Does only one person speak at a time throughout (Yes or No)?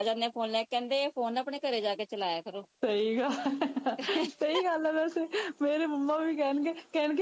Yes